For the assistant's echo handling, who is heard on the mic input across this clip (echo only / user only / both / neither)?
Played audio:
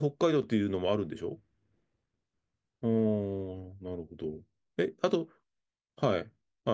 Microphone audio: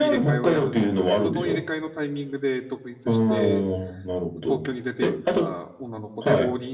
both